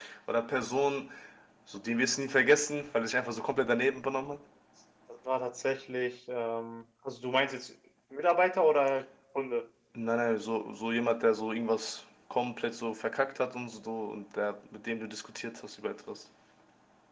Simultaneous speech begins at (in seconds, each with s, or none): none